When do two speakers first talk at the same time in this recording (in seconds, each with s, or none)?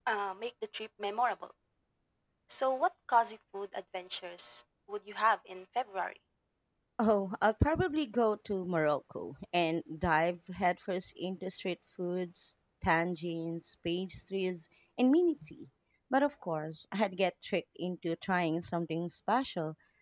none